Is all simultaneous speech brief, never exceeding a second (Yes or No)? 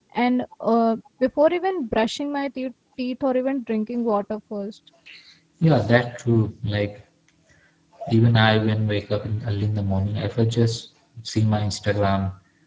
Yes